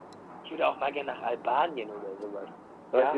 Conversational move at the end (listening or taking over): taking over